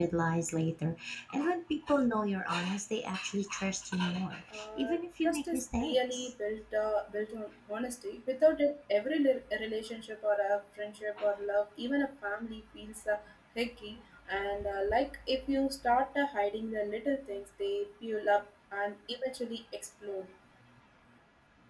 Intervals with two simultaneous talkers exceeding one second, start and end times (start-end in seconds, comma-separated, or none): 4.5-6.3